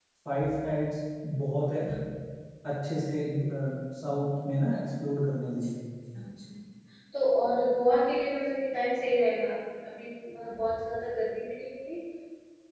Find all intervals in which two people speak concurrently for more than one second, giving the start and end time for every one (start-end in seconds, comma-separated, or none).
none